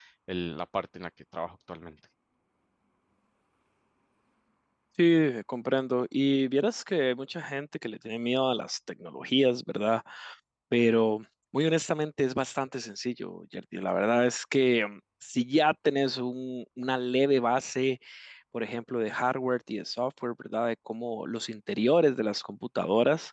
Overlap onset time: none

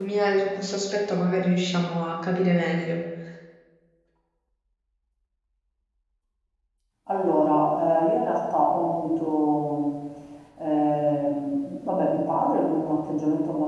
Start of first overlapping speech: none

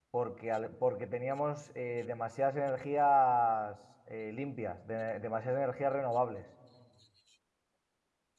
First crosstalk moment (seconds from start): none

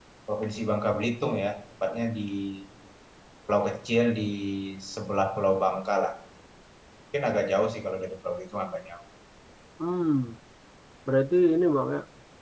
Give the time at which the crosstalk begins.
none

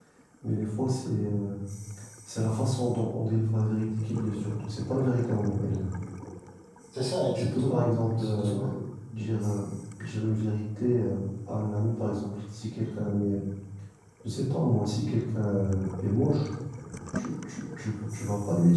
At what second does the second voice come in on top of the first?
7 s

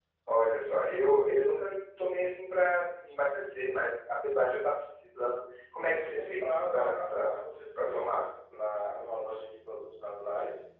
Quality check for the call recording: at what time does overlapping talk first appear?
6 s

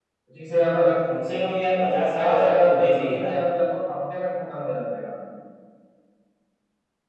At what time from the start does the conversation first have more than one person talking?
2 s

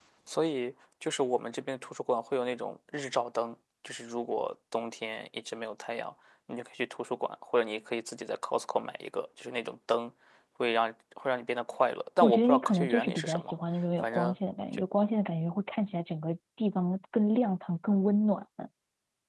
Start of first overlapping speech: 12 s

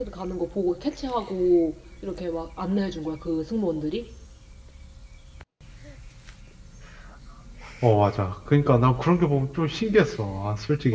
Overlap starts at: none

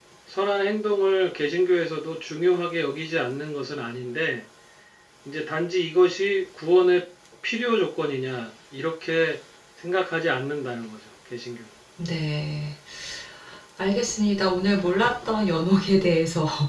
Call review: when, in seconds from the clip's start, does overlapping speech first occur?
none

